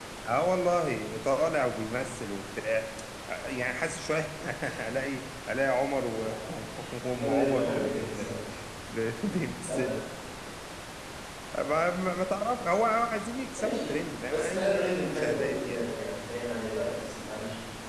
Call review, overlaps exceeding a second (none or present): present